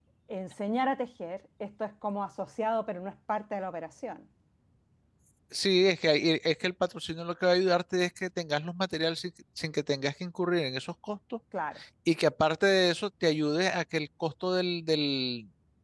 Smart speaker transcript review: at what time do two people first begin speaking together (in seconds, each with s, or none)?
none